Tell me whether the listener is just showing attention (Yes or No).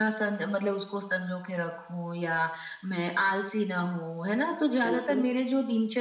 Yes